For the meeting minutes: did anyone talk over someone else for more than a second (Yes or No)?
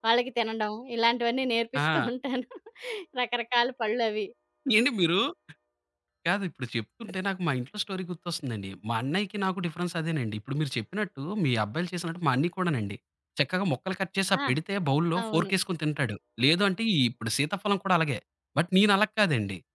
No